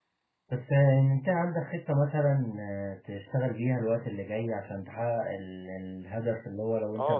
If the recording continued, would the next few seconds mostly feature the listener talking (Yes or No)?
No